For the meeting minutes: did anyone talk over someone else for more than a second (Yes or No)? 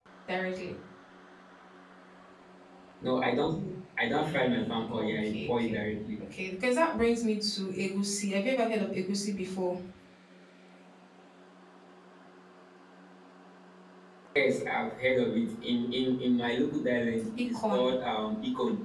Yes